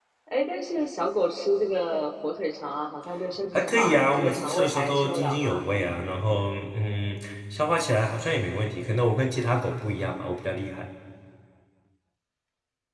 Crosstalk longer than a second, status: present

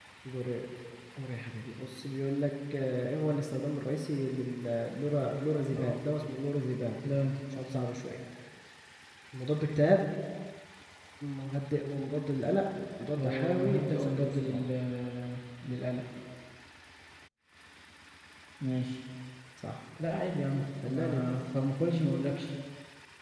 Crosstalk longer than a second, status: present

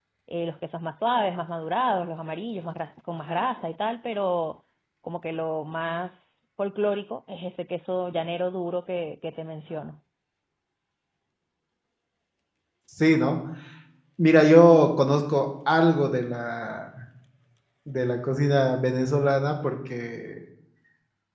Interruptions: none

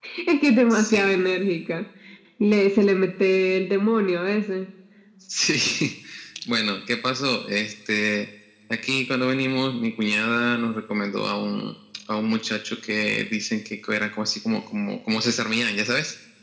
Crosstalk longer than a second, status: none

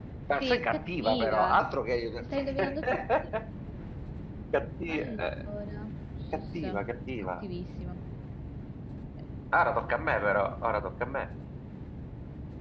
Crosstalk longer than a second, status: present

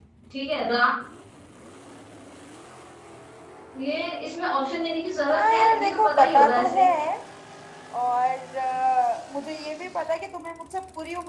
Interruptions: present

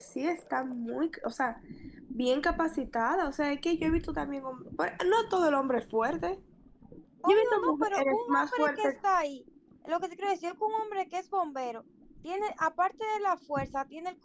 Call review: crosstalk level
present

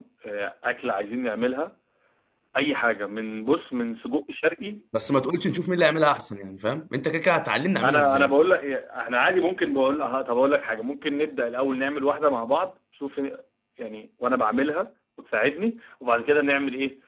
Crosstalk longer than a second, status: none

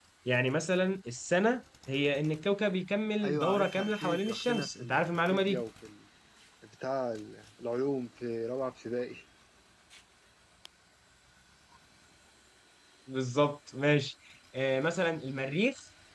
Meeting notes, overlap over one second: present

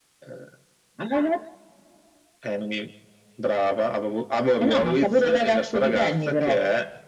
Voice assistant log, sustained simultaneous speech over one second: present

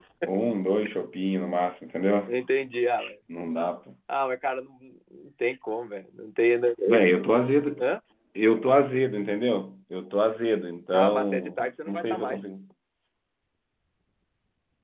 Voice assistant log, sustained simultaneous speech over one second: present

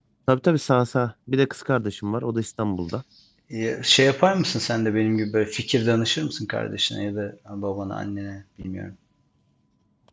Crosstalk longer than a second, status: none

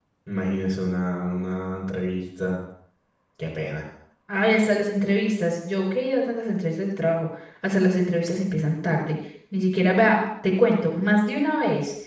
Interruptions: none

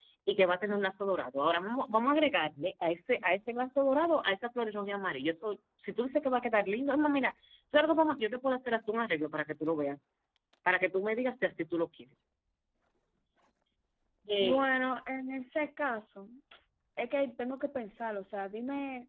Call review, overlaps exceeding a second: none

